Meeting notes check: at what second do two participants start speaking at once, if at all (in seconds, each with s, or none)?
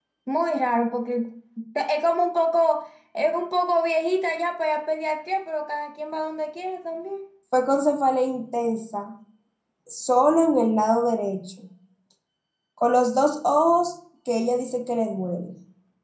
none